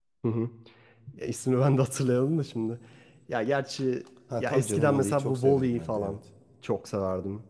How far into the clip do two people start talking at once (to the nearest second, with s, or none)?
4 s